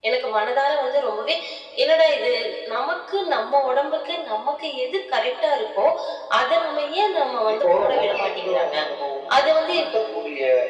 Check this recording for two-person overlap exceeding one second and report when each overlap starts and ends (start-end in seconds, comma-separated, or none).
7.5-8.8